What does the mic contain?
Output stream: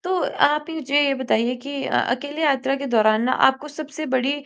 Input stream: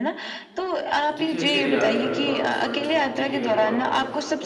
both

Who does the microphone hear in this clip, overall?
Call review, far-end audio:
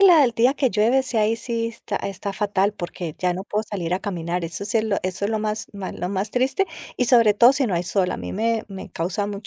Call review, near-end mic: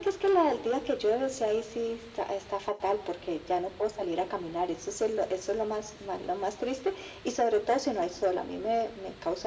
echo only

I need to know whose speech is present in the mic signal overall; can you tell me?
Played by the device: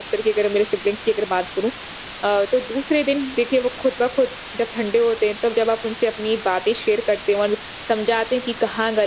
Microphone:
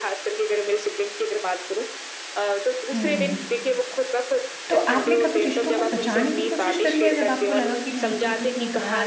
both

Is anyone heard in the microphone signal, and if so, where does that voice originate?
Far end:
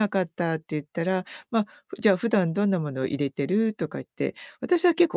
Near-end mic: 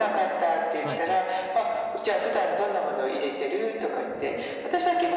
both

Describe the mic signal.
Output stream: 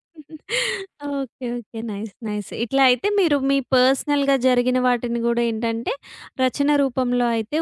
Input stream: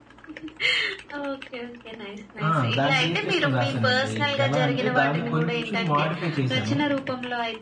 both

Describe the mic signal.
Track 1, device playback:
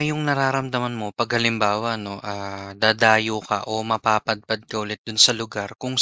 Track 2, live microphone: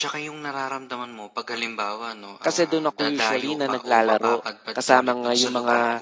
both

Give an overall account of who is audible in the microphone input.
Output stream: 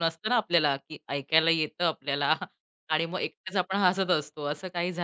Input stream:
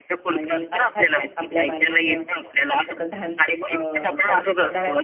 both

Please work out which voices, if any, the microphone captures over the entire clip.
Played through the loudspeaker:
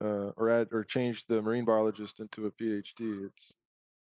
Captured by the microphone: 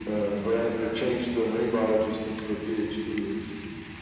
echo only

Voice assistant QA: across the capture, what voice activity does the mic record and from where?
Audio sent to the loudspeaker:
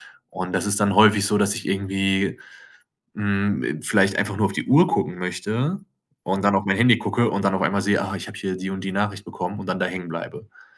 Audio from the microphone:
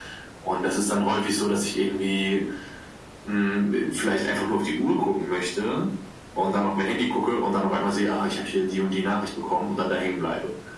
echo only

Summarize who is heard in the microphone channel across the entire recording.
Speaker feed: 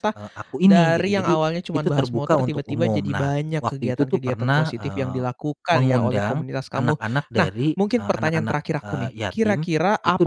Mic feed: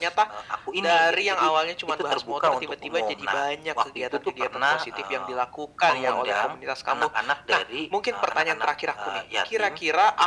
echo only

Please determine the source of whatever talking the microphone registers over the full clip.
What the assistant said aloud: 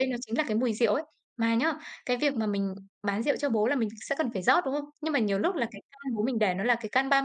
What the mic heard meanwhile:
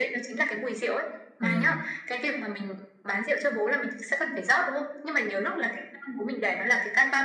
both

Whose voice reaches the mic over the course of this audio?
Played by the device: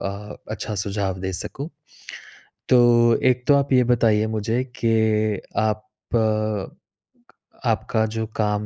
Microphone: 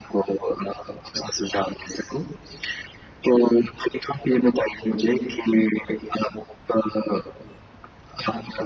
echo only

